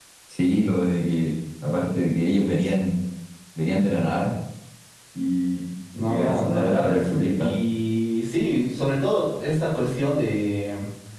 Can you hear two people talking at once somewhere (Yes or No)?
Yes